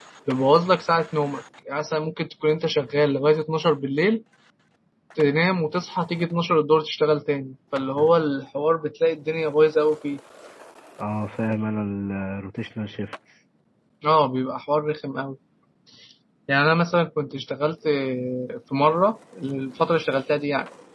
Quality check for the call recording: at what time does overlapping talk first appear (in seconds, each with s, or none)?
none